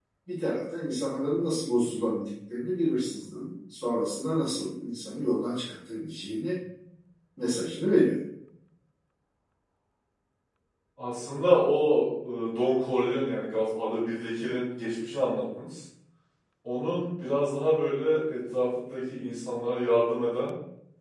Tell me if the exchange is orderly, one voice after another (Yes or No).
Yes